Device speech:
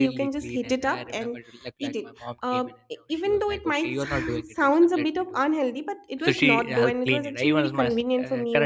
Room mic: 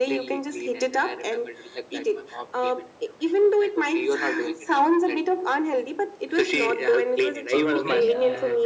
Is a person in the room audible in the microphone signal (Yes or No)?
Yes